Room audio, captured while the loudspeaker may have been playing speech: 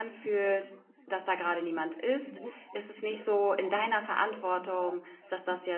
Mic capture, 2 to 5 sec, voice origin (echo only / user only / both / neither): both